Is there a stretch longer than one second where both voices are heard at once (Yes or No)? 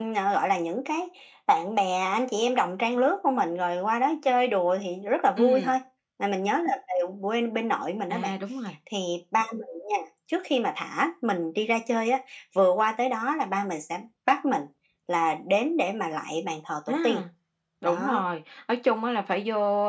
No